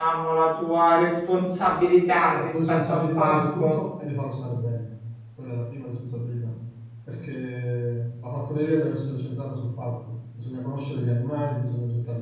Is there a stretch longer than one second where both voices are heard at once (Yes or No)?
Yes